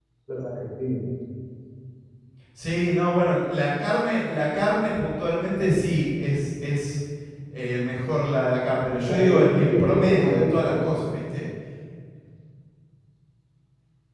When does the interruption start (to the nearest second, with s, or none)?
9 s